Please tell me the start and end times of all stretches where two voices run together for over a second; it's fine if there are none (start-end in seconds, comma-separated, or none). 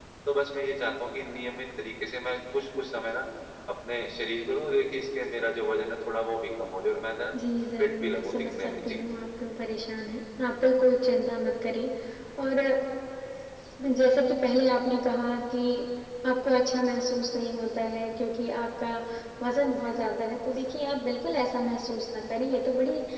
7.8-9.0